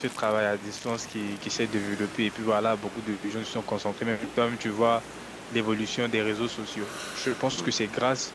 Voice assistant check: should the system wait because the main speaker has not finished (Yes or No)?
Yes